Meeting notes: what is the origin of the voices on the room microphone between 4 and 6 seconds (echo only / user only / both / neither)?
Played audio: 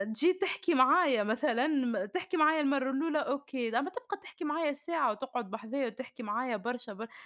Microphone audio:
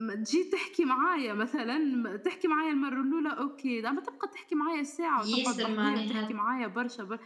both